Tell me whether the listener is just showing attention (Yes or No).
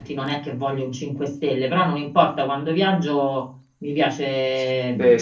No